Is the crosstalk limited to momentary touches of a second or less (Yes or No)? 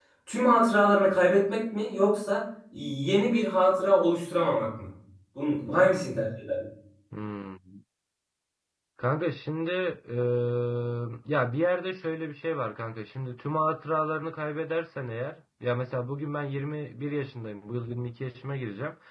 Yes